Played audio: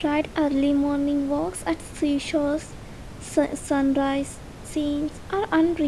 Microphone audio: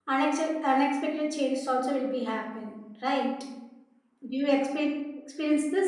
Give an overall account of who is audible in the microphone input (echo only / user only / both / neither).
user only